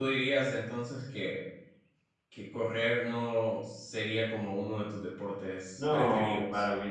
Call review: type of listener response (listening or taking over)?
taking over